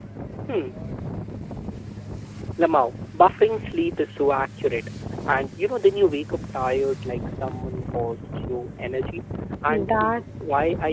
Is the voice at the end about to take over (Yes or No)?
No